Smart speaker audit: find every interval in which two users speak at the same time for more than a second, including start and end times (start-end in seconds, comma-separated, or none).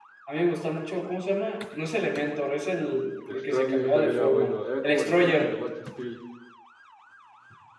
3.3-5.6